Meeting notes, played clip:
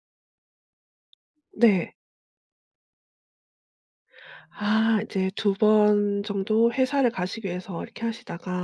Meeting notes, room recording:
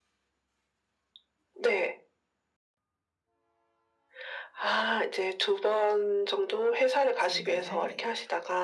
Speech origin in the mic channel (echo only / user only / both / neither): both